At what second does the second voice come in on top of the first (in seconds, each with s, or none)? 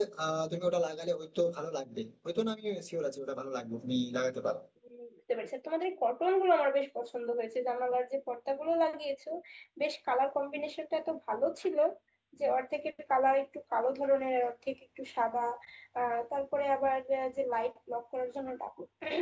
none